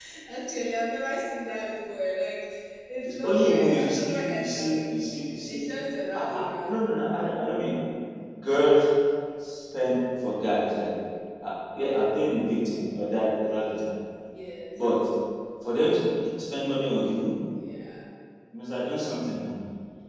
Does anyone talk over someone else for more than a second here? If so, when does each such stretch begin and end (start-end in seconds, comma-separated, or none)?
3.0-4.8